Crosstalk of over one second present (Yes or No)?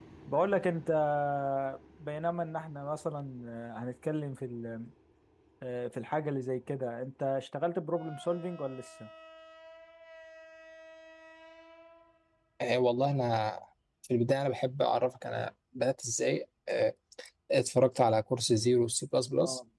No